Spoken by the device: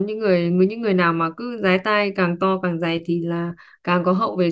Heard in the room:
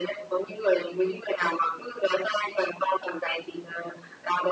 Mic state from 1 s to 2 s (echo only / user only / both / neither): echo only